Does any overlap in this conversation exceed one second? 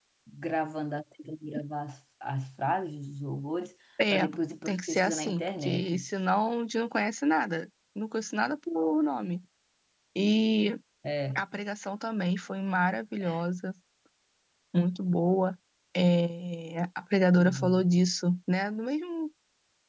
Yes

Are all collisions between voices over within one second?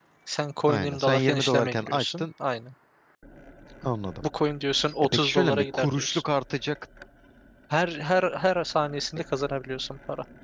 No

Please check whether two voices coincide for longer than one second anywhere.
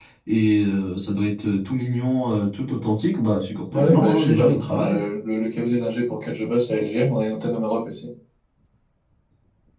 Yes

